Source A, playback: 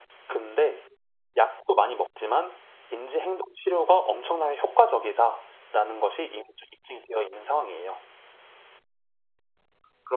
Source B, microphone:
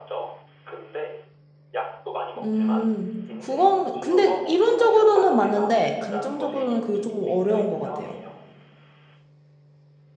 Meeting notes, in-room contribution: present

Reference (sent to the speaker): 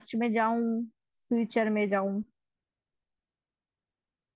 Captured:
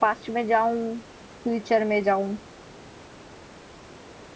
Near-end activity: none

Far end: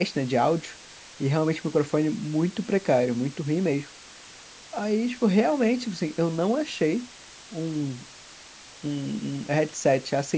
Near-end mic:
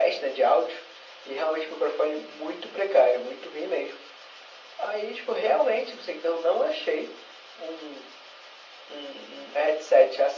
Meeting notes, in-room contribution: none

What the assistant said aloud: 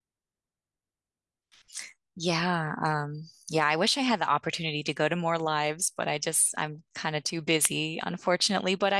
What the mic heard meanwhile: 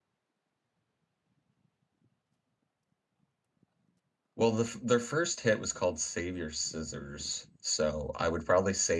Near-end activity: present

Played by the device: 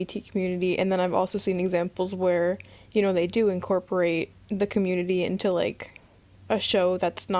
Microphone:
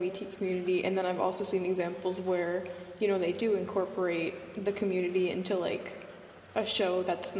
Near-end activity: none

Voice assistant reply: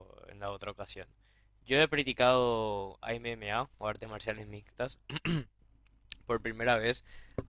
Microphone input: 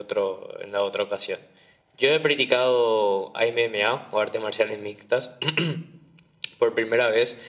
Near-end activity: none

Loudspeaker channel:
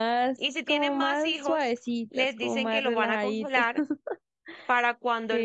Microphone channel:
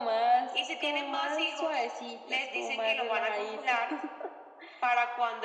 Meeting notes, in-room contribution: none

